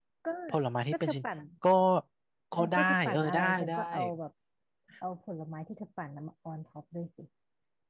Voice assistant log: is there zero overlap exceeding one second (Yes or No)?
No